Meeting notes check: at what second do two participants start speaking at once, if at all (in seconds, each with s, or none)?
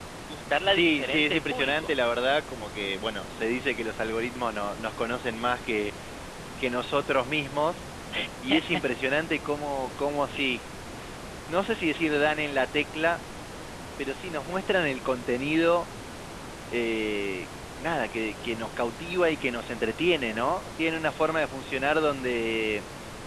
0.7 s